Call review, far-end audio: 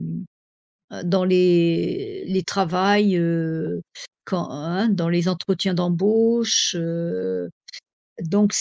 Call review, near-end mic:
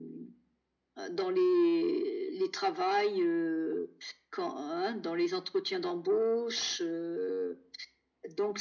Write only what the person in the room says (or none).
none